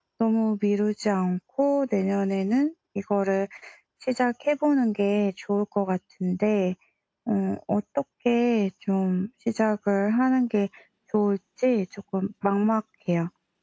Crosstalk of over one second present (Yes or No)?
No